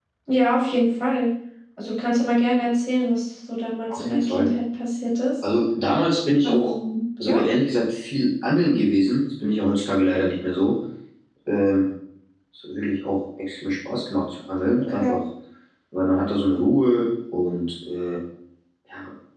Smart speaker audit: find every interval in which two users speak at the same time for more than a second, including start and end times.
none

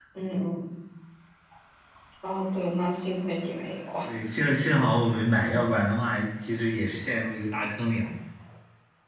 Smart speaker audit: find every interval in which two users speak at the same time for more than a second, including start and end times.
none

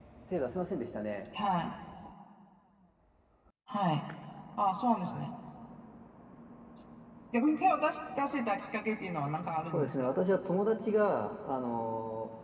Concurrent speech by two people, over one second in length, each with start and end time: none

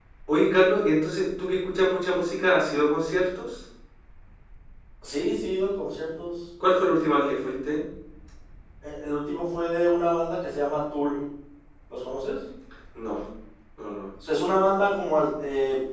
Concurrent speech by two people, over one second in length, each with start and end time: none

